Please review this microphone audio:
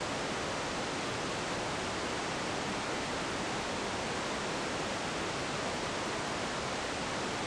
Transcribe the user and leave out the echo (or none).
none